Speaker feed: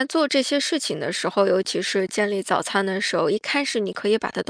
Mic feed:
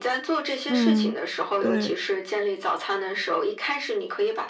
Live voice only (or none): 嗯，对，